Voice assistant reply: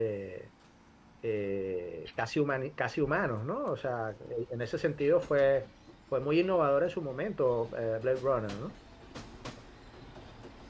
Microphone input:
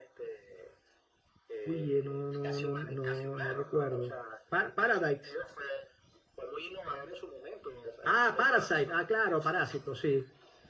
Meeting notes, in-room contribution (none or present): present